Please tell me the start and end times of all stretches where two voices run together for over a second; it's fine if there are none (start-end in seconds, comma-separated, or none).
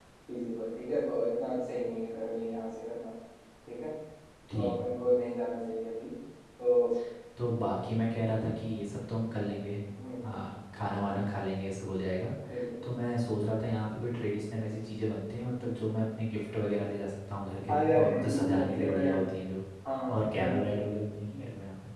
17.7-19.2